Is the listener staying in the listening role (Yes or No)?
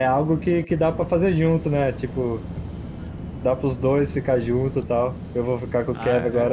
Yes